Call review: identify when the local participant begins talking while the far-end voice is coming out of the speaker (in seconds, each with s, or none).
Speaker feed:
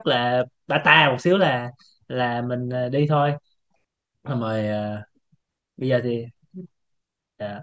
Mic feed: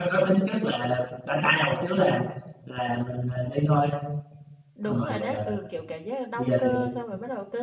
4.8 s